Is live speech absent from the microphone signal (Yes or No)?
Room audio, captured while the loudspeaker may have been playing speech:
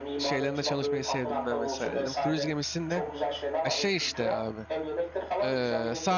No